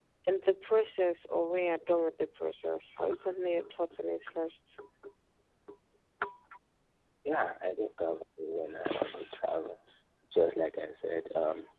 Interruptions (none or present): none